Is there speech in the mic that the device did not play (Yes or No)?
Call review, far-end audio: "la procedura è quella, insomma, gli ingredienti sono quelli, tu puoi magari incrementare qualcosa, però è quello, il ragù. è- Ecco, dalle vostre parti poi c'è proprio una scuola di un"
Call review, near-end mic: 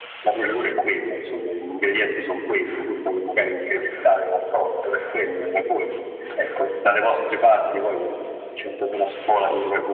Yes